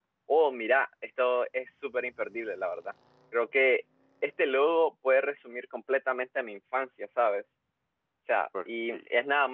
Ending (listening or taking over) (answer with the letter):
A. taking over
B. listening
B